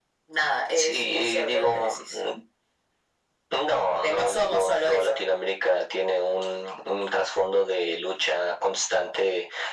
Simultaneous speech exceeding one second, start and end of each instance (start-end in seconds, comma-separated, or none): 0.8-2.2, 3.9-5.2